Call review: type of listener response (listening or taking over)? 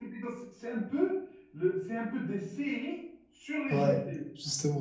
taking over